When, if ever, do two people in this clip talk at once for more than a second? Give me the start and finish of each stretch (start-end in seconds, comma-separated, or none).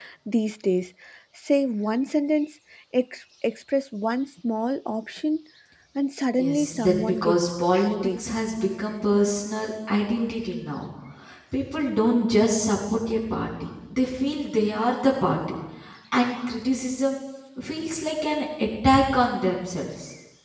6.3-8.2